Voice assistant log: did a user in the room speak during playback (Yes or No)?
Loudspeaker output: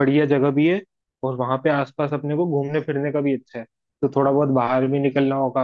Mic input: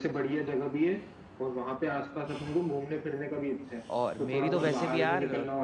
Yes